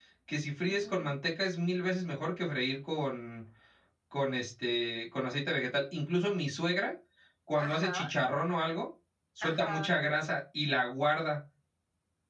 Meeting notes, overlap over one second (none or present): none